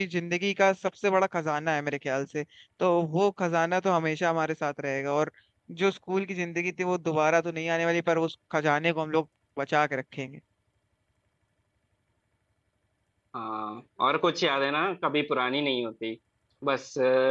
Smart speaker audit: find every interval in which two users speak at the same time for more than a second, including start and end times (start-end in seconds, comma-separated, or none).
none